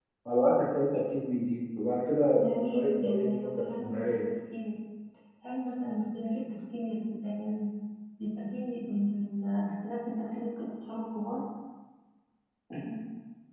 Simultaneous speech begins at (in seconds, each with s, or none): 2.4 s